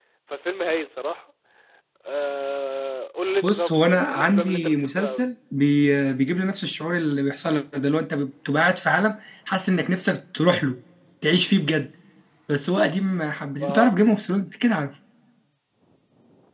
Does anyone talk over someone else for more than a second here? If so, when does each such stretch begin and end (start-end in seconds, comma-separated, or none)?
3.4-5.2